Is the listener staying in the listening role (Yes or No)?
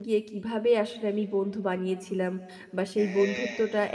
Yes